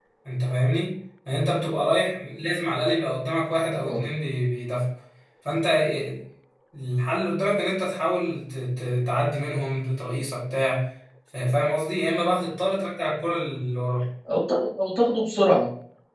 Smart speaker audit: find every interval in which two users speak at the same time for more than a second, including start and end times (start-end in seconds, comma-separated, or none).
none